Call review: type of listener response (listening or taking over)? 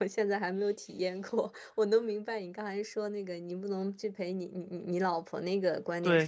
taking over